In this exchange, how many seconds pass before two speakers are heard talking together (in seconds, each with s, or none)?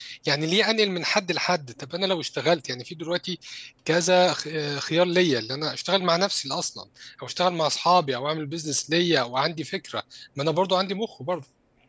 none